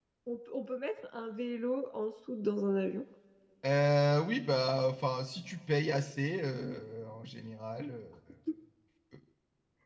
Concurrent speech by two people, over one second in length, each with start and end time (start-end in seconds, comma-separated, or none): none